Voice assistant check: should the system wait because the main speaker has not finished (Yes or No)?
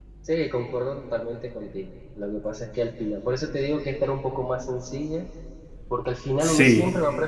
Yes